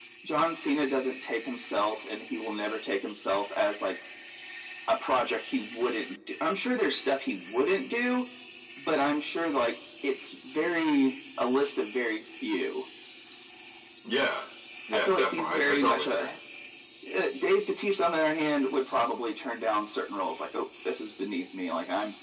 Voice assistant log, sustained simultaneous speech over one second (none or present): present